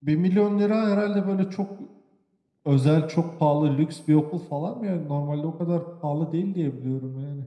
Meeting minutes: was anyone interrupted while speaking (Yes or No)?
No